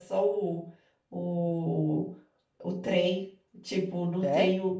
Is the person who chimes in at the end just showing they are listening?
Yes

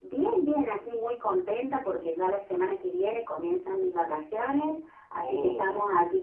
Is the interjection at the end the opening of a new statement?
No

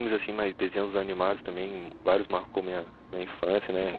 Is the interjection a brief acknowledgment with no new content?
No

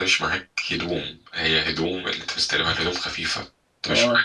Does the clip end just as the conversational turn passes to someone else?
No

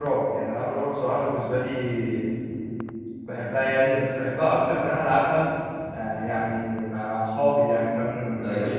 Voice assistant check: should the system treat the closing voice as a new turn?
Yes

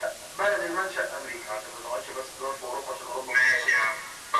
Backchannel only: No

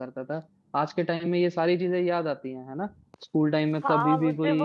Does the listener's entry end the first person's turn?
Yes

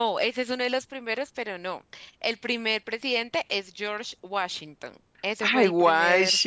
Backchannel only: No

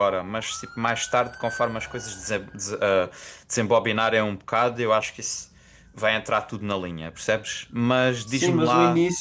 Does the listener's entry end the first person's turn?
Yes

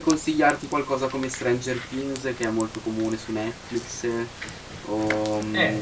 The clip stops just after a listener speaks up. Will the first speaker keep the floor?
No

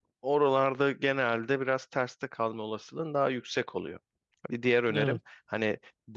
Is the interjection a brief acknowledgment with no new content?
Yes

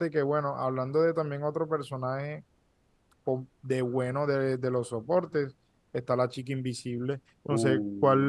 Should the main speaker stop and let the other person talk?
No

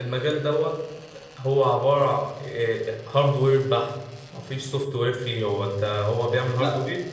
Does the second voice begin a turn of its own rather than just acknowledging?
No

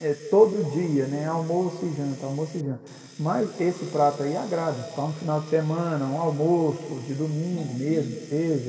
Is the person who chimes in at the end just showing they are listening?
Yes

